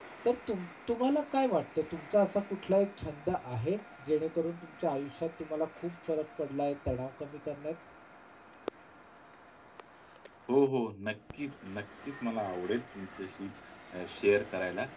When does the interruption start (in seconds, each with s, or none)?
none